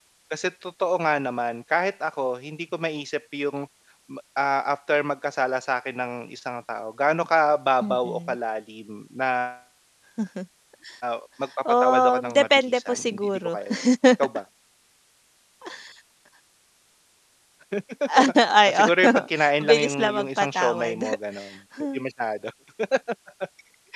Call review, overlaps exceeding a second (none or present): present